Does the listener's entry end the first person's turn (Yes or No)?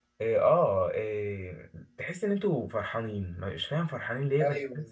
Yes